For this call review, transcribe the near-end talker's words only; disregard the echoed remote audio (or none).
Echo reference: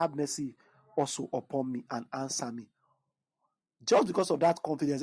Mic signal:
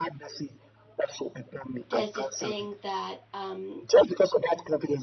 there's this thing that um